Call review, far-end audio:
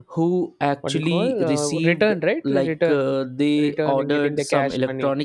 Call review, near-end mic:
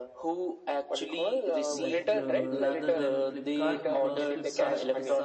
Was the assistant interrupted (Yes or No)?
Yes